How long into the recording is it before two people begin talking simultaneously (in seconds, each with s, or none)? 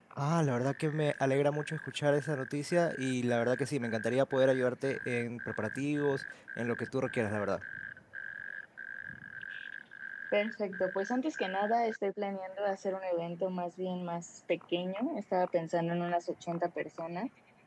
none